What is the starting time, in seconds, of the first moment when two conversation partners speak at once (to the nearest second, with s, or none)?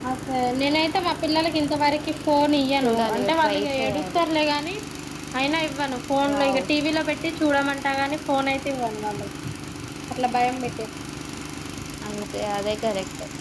3 s